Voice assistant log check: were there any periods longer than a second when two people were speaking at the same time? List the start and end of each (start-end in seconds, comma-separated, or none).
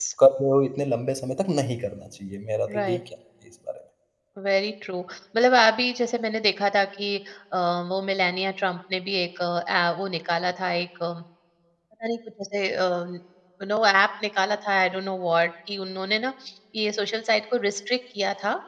none